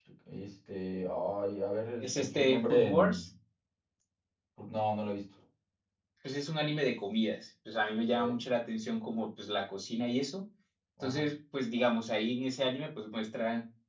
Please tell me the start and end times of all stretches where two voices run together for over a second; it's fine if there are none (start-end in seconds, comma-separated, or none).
2.0-3.2